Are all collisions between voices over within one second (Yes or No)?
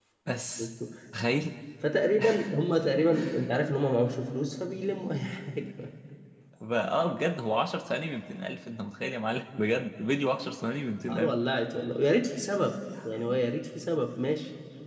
Yes